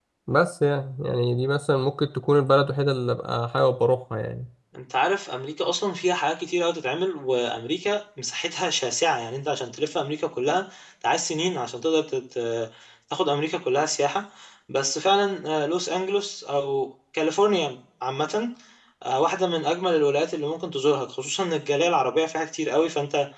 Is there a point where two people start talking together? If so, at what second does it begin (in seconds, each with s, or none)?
none